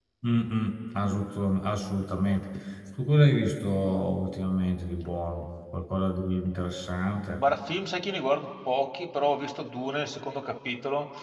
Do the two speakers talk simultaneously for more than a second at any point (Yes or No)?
No